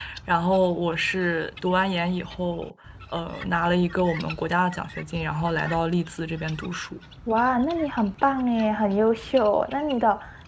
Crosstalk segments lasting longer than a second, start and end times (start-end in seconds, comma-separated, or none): none